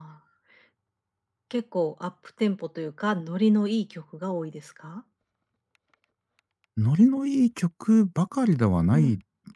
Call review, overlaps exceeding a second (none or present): none